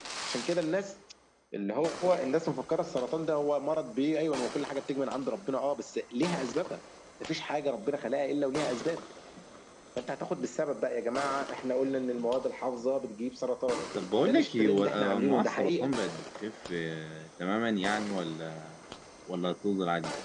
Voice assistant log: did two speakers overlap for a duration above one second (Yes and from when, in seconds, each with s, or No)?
Yes, from 14.2 s